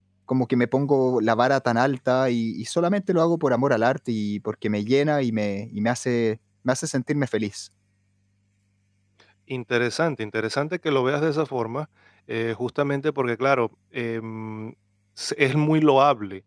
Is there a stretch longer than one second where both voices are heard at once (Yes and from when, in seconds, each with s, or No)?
No